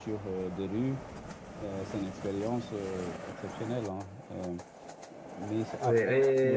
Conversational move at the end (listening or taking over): taking over